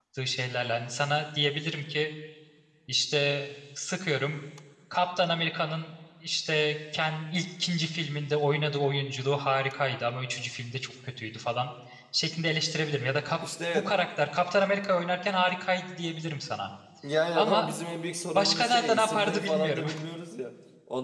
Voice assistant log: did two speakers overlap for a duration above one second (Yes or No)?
Yes